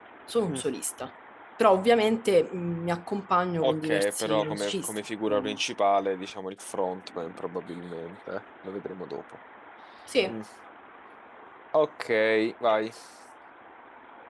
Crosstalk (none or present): present